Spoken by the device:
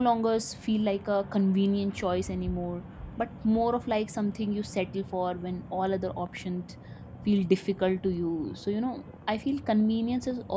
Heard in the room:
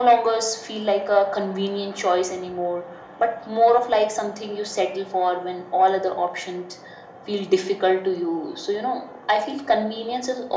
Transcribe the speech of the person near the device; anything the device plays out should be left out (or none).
none